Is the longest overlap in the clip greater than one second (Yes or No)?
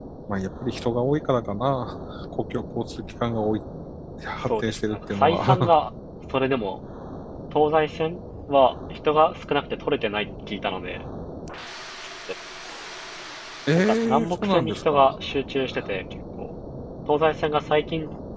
Yes